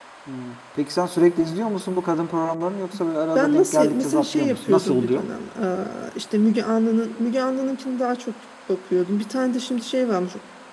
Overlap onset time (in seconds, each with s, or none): 3.4 s